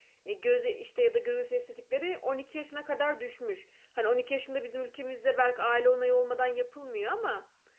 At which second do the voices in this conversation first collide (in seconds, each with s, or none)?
none